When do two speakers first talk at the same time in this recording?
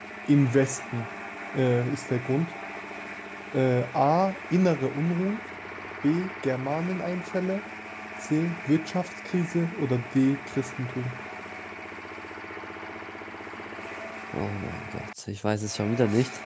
none

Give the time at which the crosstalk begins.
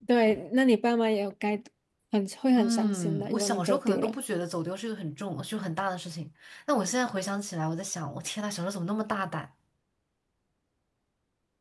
3 s

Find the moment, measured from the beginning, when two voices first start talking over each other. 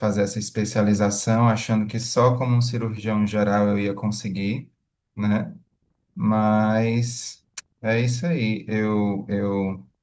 none

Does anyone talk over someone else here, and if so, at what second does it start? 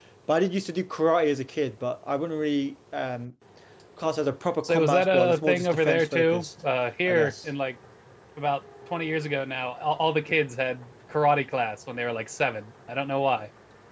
5 s

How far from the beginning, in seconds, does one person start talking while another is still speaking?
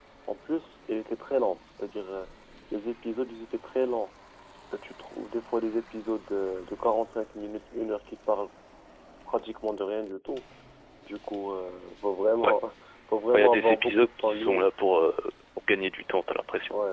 13 s

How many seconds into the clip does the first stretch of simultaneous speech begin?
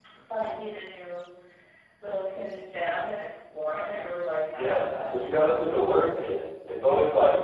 5 s

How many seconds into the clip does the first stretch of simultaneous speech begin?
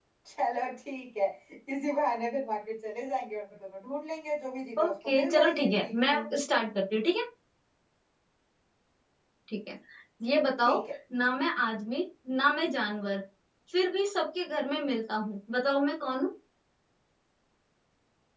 5 s

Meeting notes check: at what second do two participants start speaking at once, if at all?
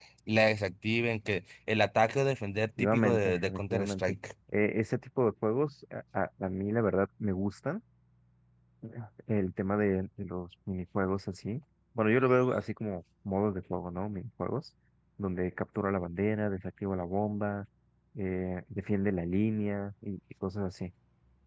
3 s

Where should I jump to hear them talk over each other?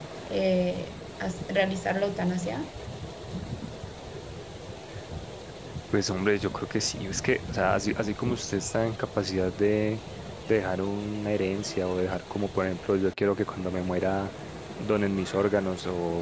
none

